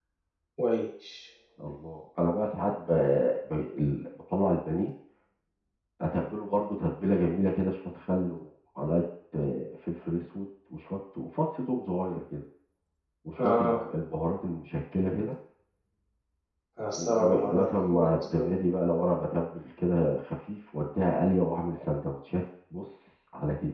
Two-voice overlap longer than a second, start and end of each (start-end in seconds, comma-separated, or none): 16.9-18.5